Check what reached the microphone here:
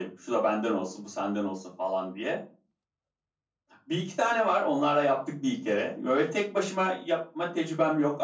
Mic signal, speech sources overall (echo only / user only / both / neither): echo only